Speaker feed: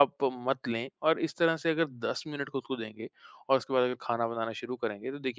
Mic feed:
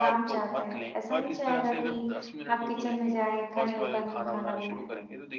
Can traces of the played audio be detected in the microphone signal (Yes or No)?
Yes